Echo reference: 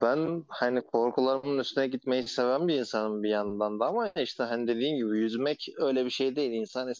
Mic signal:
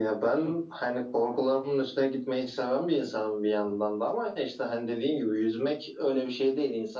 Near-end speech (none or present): none